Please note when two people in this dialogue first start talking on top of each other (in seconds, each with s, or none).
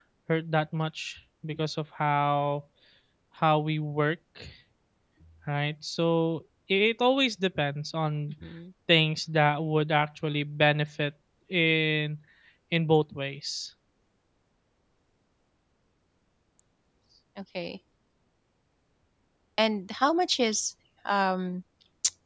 none